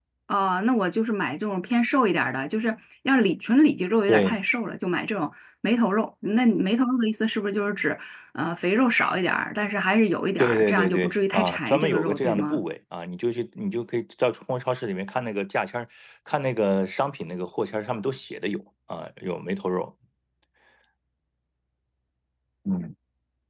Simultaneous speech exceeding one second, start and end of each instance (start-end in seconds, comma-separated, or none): 10.4-12.6